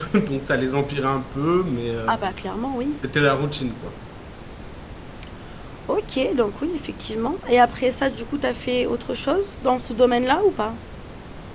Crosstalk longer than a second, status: none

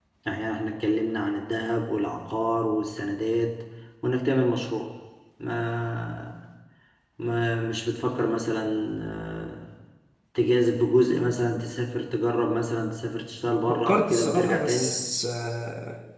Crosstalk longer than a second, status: present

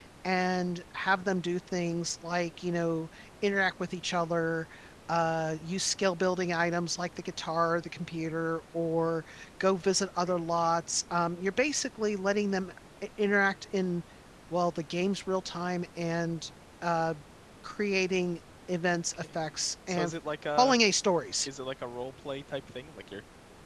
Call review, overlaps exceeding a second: none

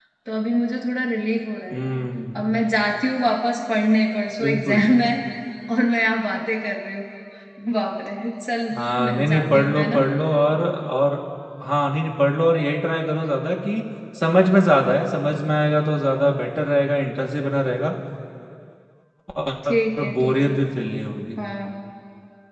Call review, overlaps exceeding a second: present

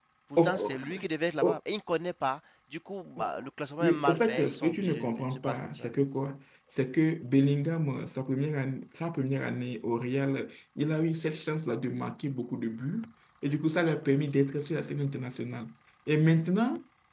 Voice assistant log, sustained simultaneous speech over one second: present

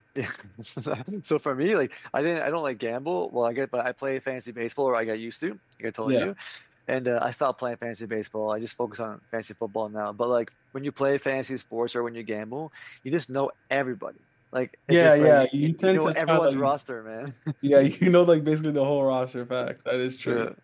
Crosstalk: present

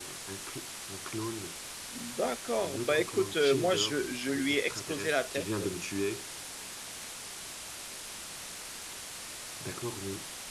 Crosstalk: present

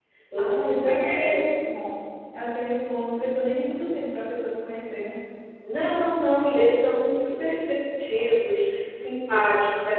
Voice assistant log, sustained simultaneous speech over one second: present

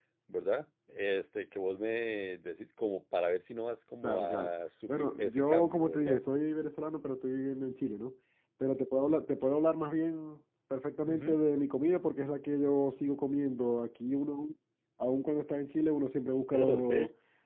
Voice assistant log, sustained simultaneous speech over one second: present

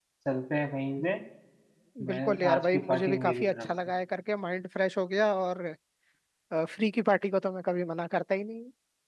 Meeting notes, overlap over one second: present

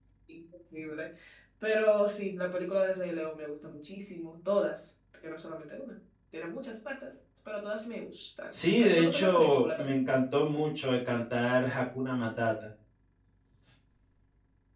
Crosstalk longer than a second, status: present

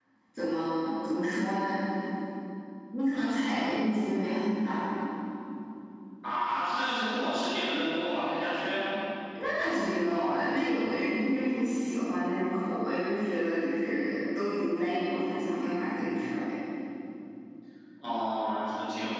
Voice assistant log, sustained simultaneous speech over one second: none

